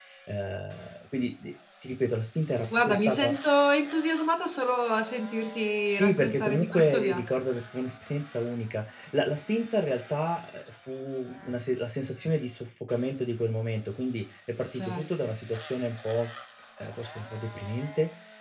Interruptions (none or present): present